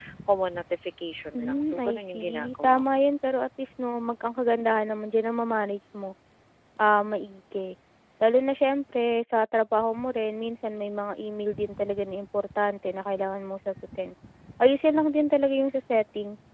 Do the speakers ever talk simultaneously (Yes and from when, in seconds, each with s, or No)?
Yes, from 1.3 s